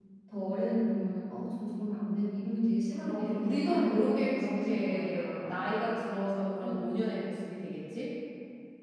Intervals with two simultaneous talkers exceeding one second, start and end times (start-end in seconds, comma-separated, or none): 3.7-5.6